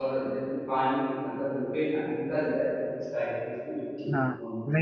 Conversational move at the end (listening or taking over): taking over